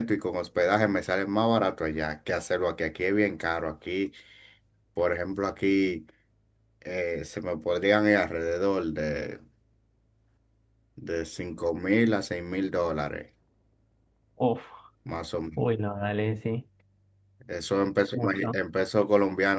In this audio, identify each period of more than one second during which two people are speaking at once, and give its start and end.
none

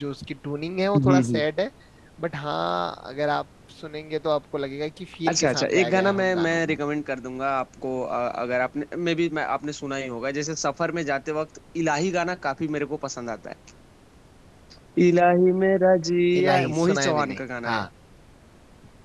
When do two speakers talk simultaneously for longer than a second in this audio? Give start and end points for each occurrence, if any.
5.3-6.8, 16.4-17.9

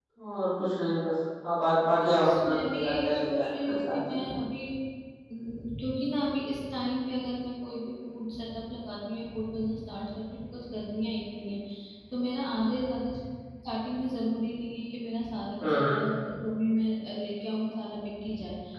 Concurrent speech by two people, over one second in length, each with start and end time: 2.0-4.3

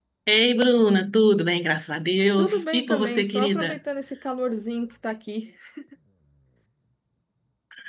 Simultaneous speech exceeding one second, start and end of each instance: 2.4-3.8

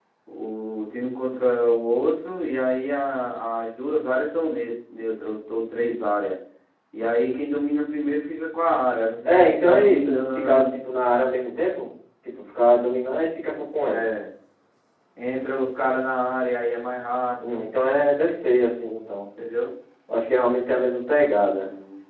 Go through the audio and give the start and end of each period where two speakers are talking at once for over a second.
9.2-10.7

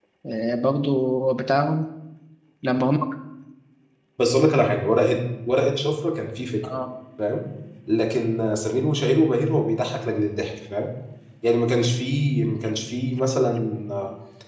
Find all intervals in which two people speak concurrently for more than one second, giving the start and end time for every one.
none

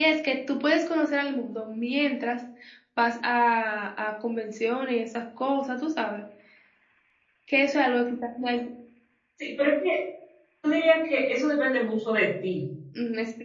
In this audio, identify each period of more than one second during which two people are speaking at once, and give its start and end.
none

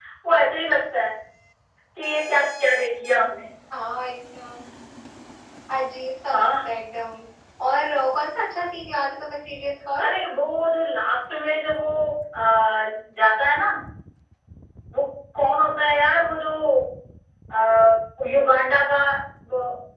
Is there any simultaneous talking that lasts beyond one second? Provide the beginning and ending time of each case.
none

